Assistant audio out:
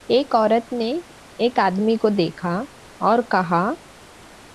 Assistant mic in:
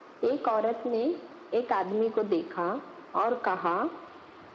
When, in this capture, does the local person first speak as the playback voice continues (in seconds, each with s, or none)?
none